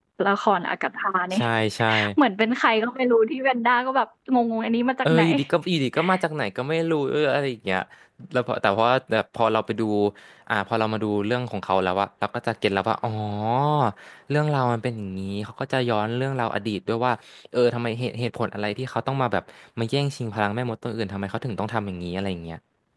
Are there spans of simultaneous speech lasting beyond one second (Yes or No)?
No